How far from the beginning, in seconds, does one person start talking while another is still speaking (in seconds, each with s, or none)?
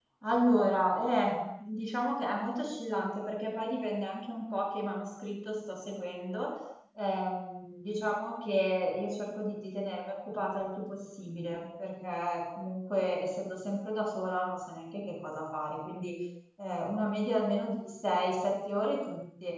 none